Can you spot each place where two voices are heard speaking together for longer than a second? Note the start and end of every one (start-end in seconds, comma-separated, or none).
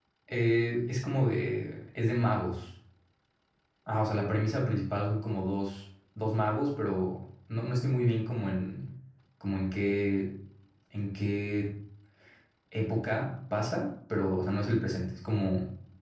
none